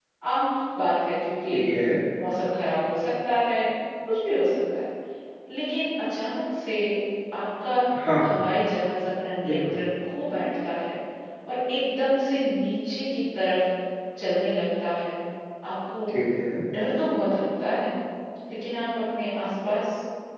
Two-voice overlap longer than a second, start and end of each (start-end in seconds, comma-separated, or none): none